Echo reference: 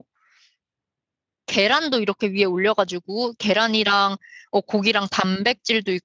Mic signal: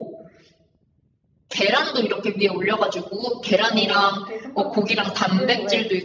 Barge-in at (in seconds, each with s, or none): 3.7 s